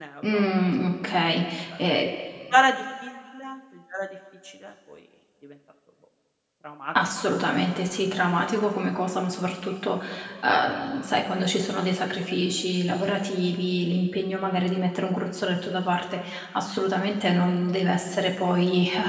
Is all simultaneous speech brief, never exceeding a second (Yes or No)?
Yes